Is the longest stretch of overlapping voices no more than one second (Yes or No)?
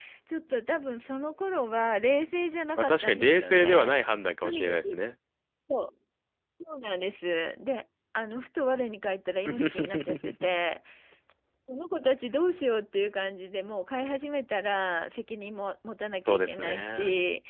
No